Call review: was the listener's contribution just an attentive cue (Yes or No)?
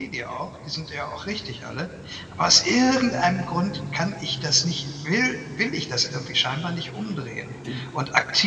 Yes